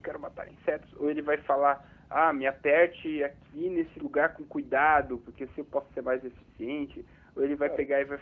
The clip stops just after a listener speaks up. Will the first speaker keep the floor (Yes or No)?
Yes